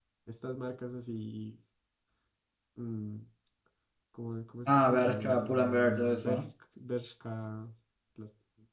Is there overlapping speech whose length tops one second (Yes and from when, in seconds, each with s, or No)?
Yes, from 4.7 s